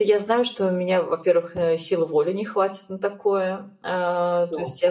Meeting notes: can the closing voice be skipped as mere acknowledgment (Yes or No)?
Yes